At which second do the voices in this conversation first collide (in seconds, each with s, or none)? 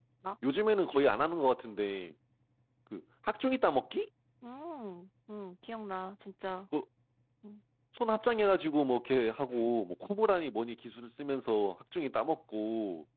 none